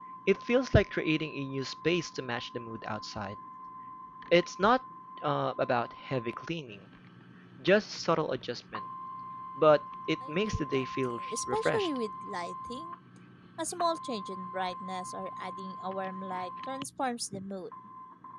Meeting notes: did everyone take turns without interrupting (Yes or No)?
No